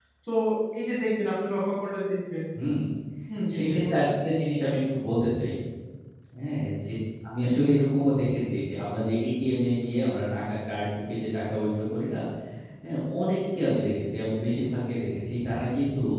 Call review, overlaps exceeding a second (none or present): none